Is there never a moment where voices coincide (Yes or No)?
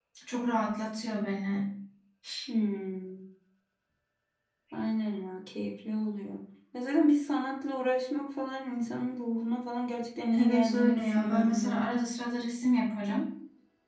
No